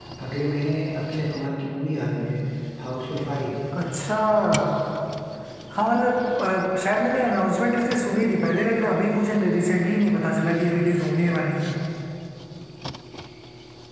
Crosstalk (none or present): none